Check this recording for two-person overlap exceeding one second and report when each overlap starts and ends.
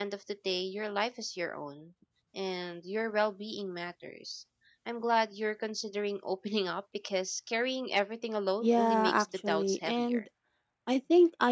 8.6-10.2

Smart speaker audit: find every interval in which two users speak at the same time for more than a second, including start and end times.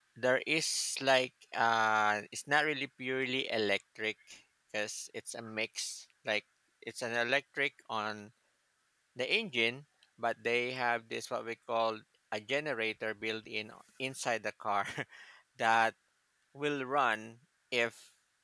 none

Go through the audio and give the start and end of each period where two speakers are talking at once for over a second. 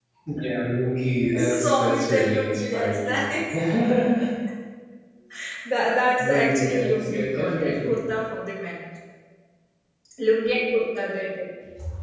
1.3-3.4, 6.2-8.0

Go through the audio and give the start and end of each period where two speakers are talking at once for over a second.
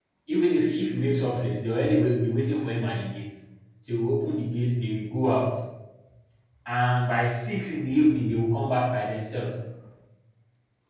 none

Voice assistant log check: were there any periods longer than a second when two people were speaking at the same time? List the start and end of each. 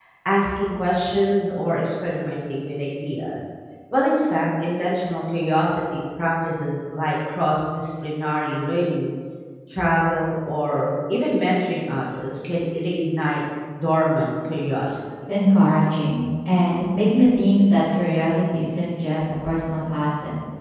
none

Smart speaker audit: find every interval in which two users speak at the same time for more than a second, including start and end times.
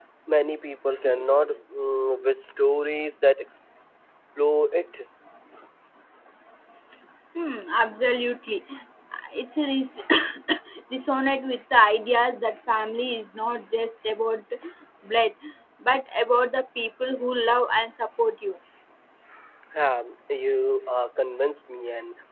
none

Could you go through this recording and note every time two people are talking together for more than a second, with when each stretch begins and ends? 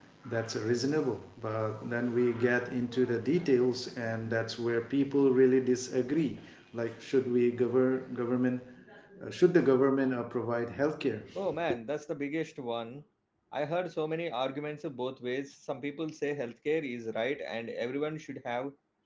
none

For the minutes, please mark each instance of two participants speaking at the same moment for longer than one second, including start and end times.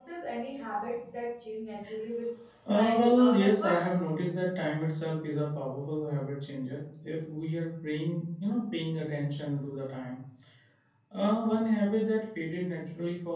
2.7-4.0

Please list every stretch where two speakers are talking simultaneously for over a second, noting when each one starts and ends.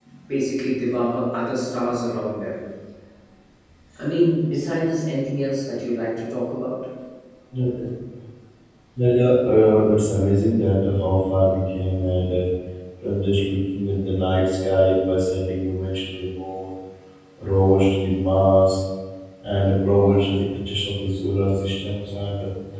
none

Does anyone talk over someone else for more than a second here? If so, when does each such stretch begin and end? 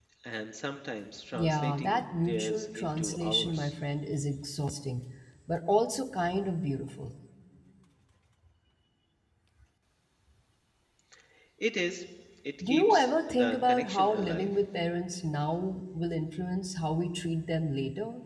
1.3-3.7, 12.6-14.5

